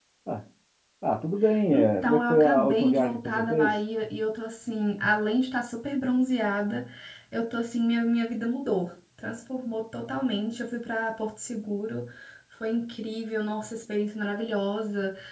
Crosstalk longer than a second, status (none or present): present